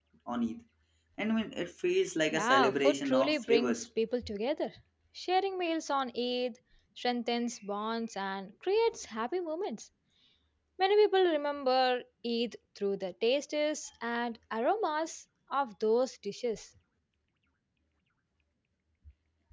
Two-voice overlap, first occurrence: 2.3 s

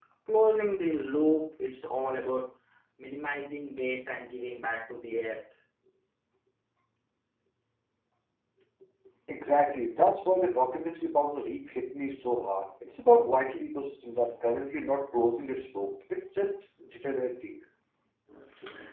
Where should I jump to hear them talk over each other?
none

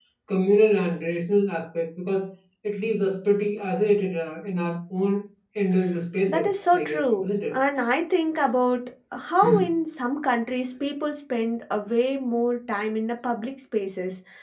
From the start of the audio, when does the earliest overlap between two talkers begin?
6.3 s

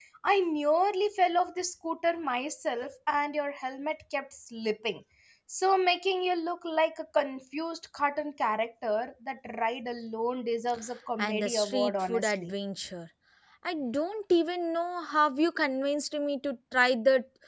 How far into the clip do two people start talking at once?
11.2 s

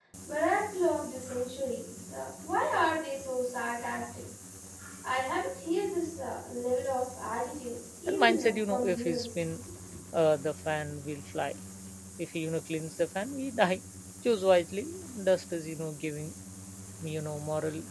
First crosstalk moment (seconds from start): 8.1 s

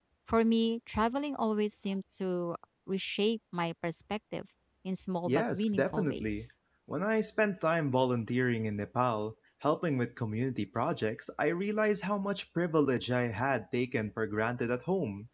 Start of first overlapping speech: 5.3 s

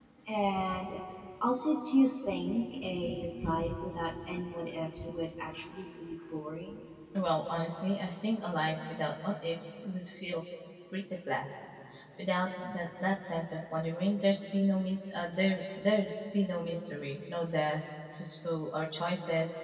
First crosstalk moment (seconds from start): none

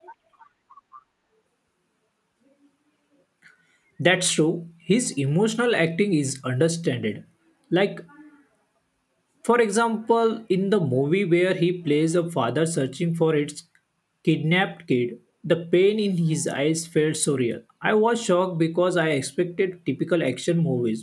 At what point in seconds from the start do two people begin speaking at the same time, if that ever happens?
none

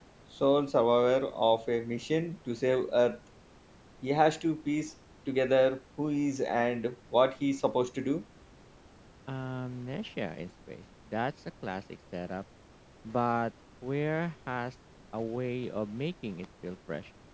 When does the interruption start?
none

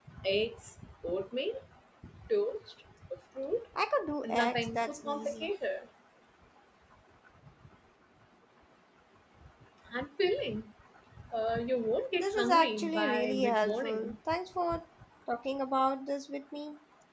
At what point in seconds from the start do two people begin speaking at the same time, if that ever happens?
4.2 s

